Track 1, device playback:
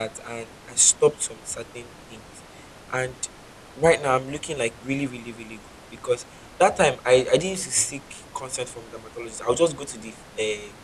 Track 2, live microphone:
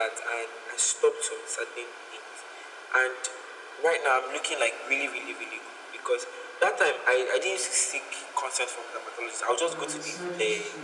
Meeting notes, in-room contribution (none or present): present